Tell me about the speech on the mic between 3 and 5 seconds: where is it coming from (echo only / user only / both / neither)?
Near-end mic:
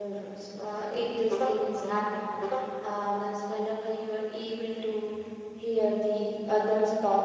user only